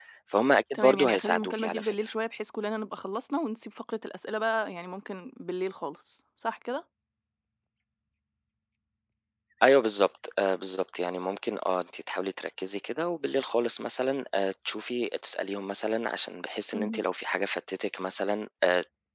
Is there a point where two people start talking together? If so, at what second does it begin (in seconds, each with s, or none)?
0.7 s